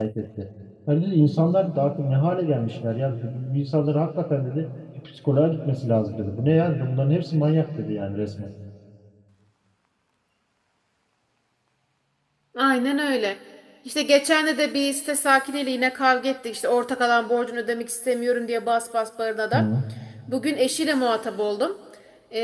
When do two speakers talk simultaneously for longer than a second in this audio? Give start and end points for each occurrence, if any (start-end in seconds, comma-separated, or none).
none